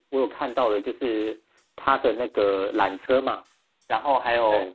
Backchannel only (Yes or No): Yes